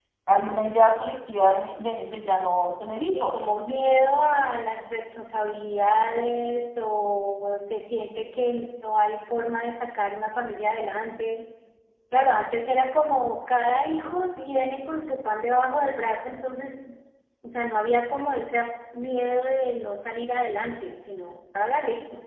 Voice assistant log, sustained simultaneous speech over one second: none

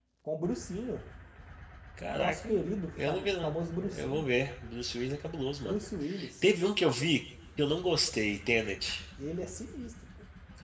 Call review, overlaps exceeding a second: present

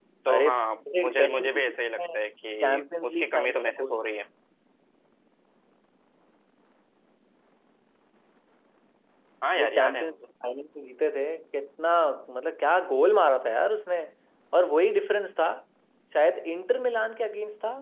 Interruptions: present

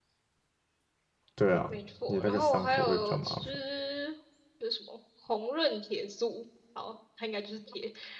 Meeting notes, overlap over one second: present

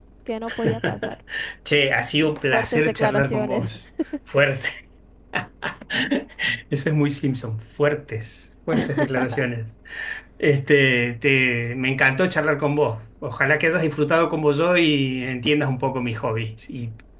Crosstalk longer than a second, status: present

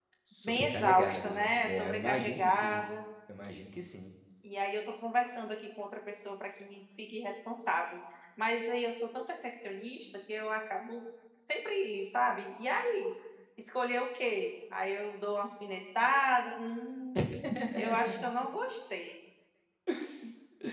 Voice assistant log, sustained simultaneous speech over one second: present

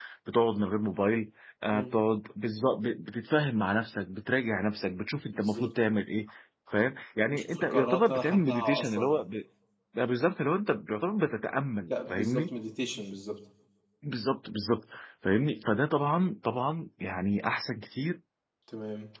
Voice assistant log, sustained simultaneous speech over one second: present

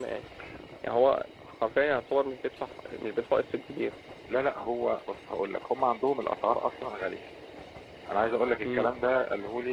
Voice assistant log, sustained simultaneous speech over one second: none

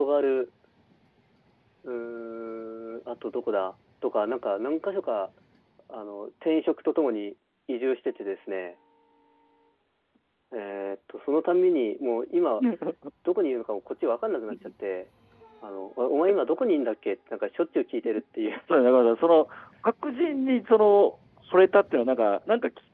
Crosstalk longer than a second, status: none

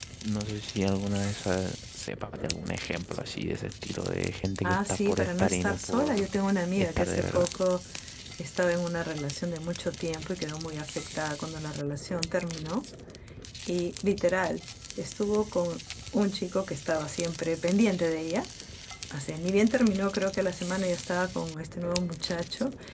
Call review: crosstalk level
present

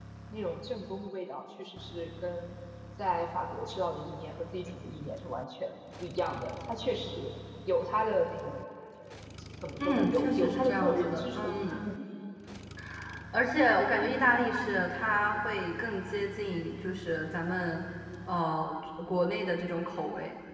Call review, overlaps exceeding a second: present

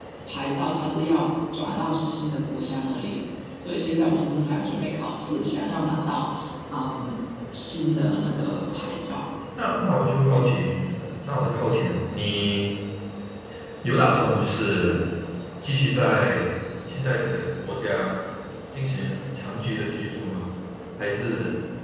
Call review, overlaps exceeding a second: none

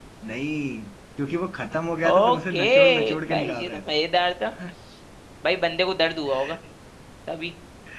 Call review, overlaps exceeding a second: present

